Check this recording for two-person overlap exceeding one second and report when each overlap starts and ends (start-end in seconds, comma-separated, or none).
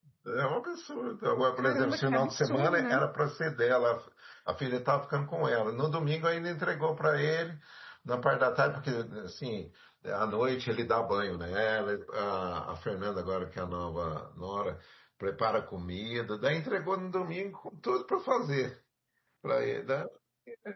1.6-3.0